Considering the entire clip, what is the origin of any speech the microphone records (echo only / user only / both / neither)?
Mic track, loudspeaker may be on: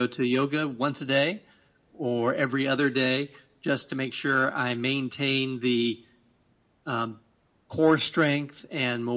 echo only